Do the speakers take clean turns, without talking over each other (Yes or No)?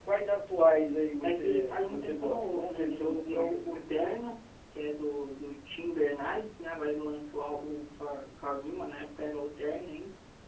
No